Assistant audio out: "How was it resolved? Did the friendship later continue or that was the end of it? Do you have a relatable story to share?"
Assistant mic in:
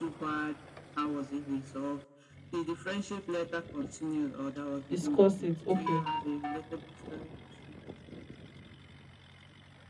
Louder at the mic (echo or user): user